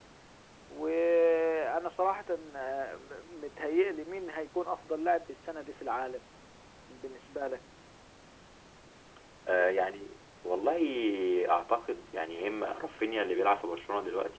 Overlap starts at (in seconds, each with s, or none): none